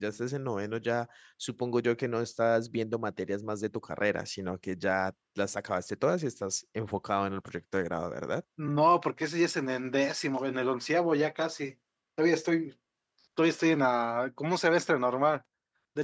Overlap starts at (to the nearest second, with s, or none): none